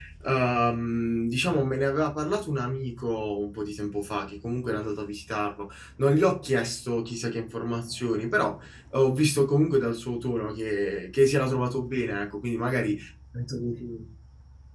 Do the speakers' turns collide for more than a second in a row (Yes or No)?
No